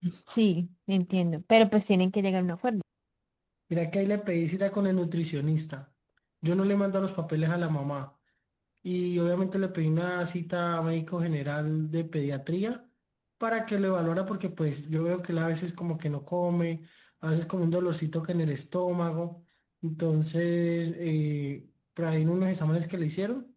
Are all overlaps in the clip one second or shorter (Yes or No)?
Yes